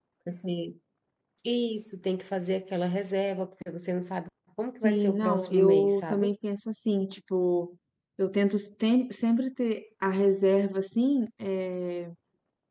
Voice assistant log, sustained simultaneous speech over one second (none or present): present